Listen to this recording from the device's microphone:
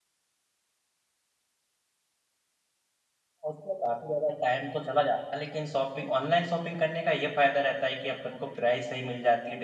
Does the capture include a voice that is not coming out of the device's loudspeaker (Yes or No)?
Yes